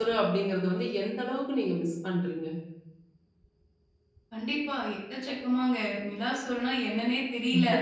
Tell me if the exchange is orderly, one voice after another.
Yes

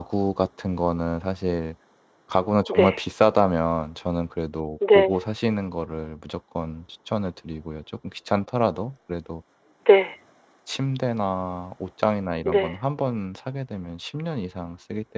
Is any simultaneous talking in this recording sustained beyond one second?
No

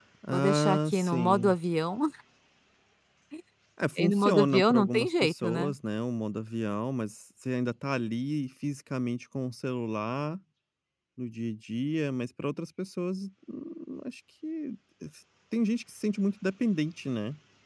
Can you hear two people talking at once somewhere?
Yes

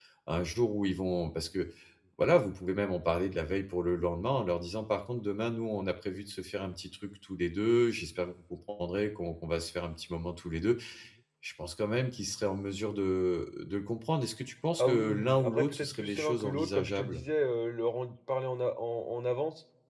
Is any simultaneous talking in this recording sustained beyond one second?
Yes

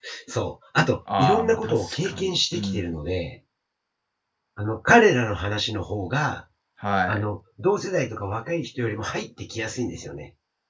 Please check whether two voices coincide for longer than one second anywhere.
Yes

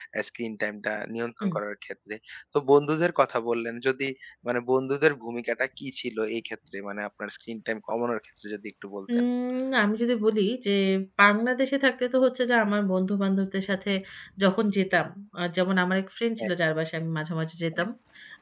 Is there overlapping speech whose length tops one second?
No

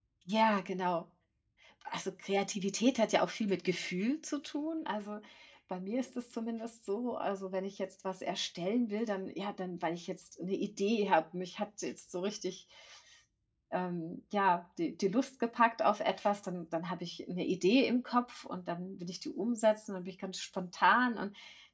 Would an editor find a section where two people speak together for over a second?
No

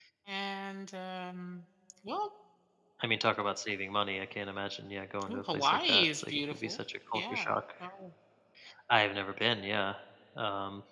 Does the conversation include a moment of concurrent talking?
Yes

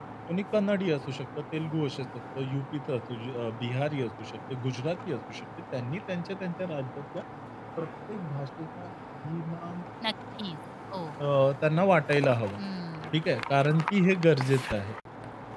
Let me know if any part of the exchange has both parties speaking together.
No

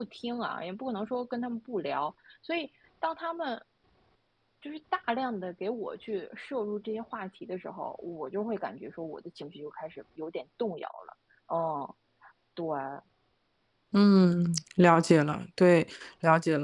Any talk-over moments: No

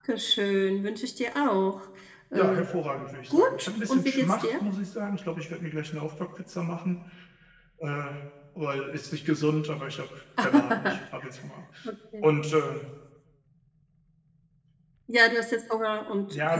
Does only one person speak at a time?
No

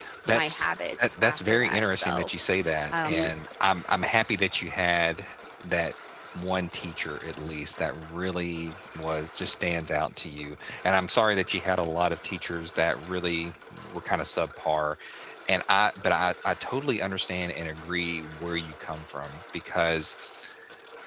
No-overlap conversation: No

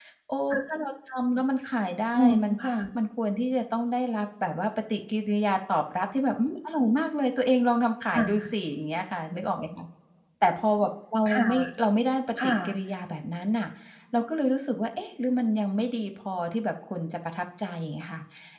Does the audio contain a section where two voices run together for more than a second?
No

